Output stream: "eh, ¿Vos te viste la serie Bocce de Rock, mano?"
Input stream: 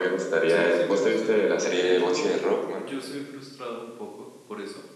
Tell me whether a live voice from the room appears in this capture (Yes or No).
Yes